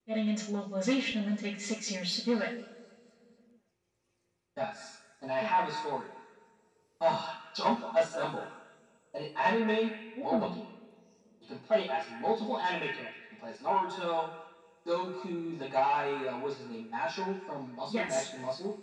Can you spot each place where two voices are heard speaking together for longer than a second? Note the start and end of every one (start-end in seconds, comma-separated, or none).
none